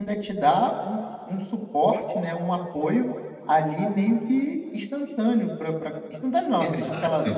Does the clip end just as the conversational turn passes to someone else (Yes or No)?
No